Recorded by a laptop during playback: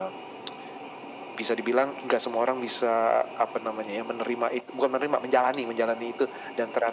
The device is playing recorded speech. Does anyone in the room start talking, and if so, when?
none

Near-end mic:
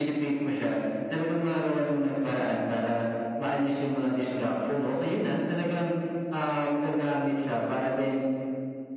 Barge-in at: none

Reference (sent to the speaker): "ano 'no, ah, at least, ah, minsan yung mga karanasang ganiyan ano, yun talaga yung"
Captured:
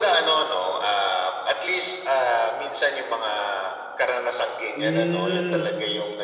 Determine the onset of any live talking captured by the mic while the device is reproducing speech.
4.8 s

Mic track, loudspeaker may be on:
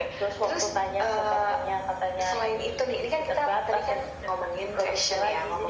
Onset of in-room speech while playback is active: none

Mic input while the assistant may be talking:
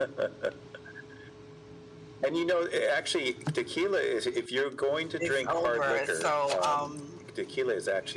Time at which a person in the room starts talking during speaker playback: 5.2 s

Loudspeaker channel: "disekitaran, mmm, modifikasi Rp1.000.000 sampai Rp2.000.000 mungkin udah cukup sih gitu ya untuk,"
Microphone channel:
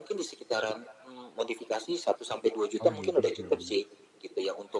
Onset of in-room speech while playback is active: 2.8 s

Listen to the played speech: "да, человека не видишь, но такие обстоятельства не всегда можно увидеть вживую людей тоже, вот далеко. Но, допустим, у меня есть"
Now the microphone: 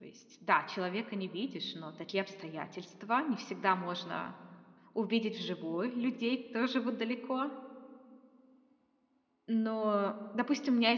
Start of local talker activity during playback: none

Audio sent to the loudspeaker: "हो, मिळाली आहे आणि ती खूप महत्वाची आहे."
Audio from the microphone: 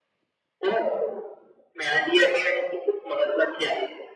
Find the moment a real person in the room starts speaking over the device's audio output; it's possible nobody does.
none

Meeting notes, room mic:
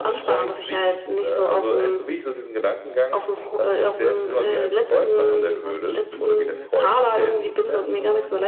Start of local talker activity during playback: 4.3 s

